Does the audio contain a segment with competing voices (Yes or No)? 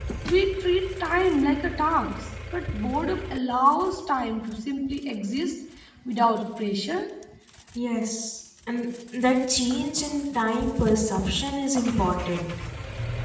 No